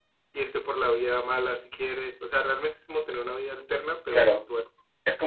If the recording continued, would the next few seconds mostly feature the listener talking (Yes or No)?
Yes